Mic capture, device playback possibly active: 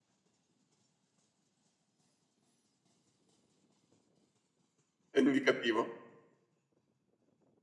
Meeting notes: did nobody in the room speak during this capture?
No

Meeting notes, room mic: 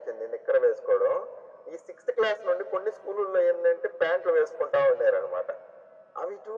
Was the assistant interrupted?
No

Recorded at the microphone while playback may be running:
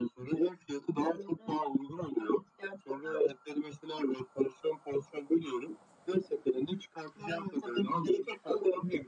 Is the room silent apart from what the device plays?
Yes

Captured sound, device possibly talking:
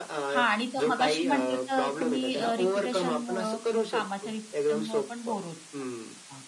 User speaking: Yes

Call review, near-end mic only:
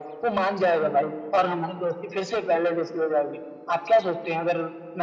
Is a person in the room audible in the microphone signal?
No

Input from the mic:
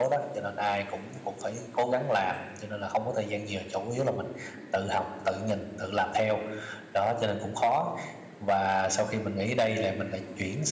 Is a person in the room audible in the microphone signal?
Yes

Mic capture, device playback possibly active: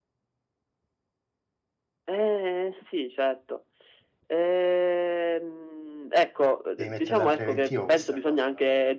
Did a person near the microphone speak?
Yes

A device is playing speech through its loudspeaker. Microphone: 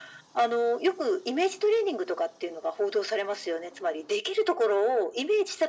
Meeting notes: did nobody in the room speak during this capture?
Yes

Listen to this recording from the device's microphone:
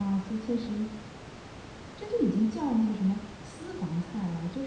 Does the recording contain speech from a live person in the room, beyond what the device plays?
Yes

